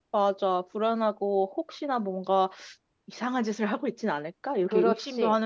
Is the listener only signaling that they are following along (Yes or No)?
No